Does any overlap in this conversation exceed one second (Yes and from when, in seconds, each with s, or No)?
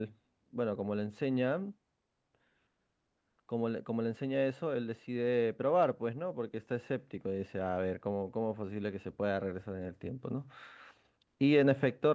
No